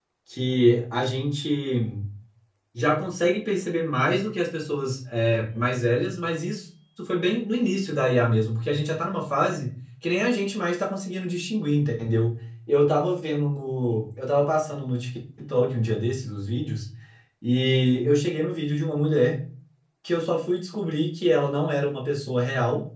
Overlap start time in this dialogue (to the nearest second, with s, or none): none